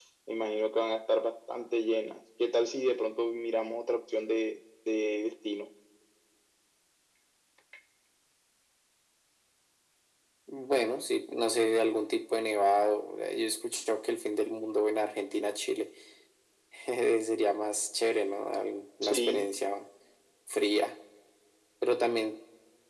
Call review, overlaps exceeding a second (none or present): none